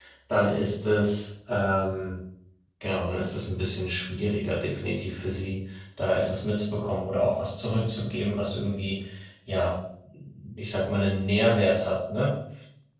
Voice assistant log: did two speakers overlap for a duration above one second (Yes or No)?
No